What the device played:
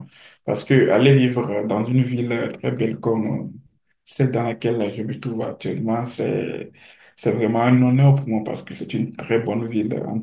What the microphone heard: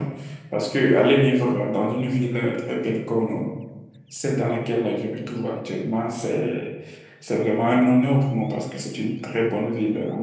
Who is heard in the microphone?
echo only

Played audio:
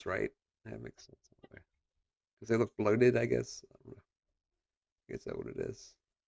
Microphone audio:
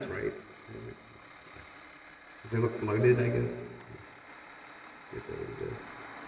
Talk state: echo only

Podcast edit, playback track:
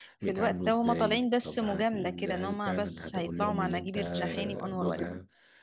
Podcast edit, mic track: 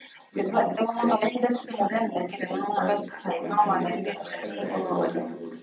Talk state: both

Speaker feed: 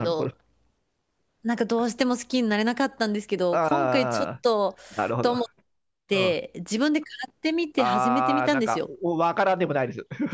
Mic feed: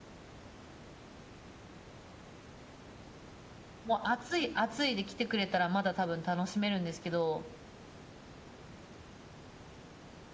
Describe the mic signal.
user only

